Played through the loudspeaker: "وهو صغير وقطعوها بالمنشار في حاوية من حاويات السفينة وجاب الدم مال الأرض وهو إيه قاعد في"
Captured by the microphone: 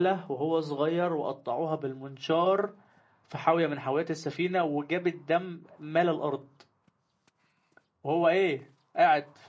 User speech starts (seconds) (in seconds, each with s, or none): none